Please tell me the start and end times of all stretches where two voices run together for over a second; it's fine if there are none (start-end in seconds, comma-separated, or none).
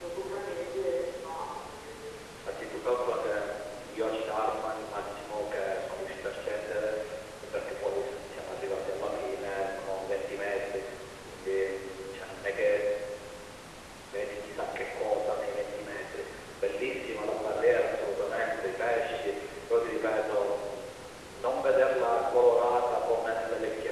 none